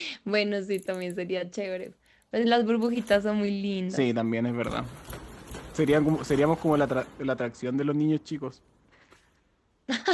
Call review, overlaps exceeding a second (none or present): none